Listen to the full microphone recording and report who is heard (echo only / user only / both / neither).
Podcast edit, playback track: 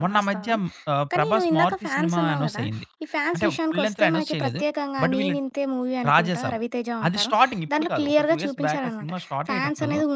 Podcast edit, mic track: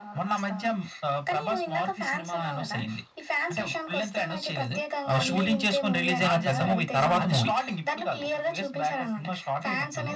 both